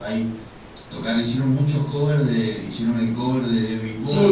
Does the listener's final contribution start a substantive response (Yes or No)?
Yes